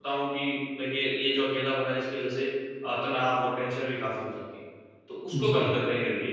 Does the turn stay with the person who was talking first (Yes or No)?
Yes